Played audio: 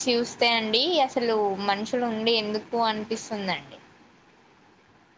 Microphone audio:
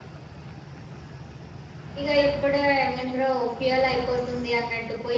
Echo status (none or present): none